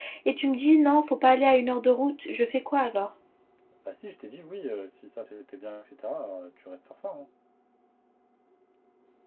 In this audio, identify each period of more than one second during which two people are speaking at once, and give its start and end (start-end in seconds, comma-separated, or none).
none